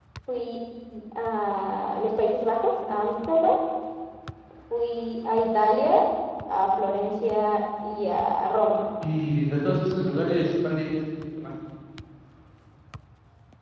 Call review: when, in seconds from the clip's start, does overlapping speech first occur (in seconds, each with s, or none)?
none